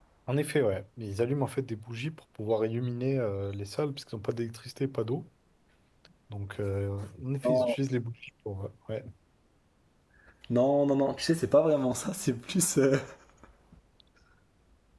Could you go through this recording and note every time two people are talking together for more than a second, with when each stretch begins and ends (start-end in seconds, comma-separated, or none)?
none